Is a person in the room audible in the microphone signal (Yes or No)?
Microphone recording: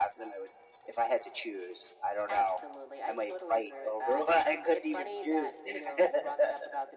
No